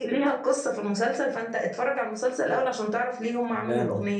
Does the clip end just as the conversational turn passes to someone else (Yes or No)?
Yes